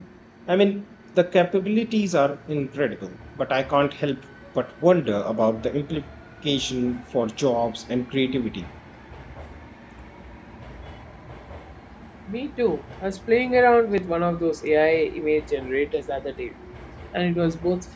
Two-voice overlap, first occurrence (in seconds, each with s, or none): none